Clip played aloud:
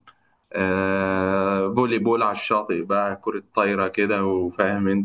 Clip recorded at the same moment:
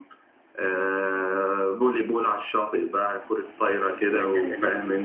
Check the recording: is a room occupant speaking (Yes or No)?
Yes